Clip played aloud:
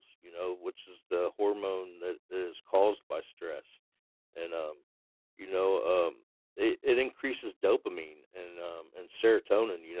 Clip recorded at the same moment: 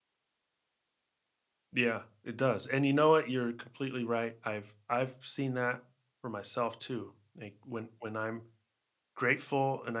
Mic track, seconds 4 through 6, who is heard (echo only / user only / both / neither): user only